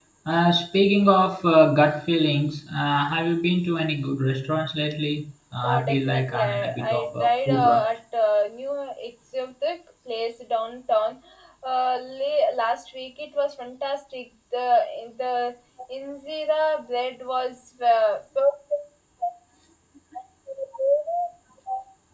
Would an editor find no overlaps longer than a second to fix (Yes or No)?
No